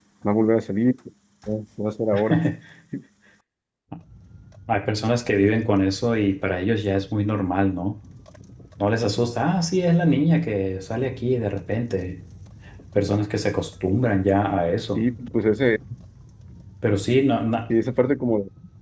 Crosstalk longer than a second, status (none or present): none